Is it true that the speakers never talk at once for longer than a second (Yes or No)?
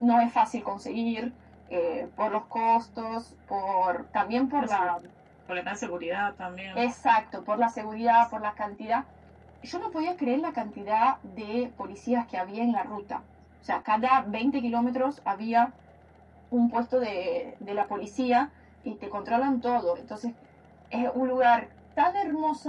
Yes